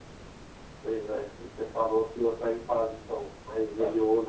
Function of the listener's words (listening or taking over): listening